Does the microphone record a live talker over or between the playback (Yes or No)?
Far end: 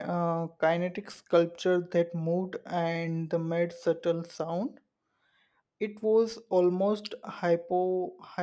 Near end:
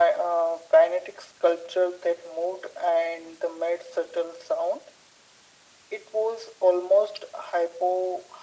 No